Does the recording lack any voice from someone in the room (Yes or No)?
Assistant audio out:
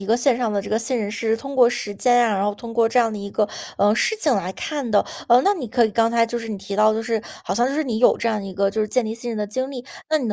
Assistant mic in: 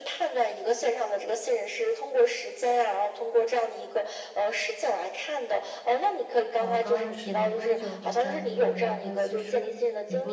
No